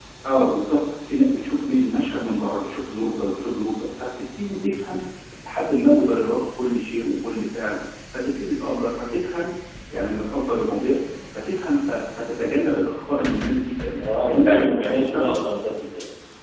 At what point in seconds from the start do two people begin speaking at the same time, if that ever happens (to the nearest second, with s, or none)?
14 s